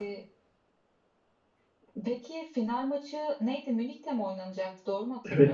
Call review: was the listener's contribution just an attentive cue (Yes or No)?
No